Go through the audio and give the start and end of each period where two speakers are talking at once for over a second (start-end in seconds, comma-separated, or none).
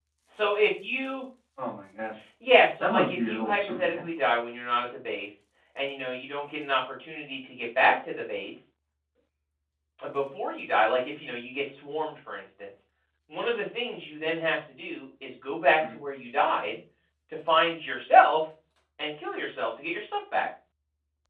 2.8-4.0